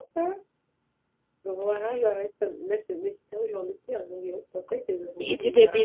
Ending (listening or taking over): taking over